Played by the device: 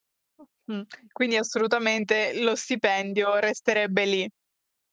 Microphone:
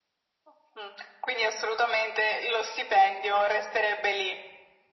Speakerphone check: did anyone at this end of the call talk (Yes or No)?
No